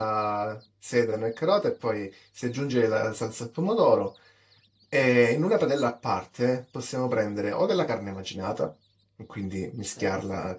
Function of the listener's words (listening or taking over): listening